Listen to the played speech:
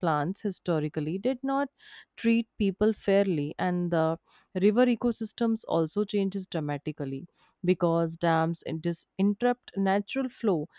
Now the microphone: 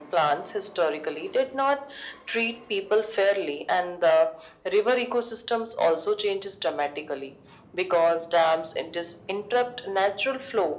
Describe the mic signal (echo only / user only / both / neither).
echo only